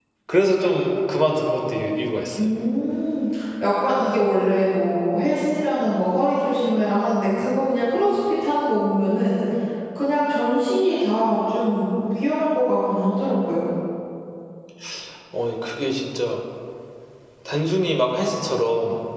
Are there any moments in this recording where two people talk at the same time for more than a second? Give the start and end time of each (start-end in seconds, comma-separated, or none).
none